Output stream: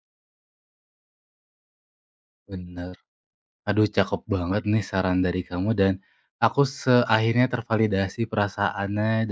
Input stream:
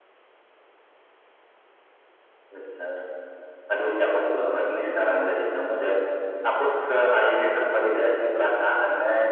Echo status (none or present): present